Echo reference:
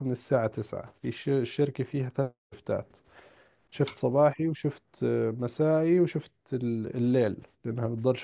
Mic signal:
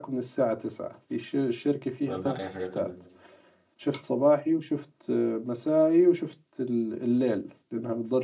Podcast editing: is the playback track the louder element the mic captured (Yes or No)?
Yes